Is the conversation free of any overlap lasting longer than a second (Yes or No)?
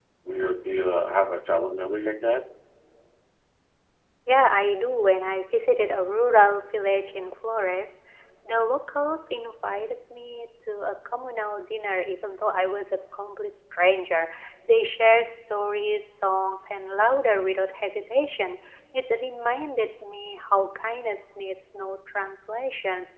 Yes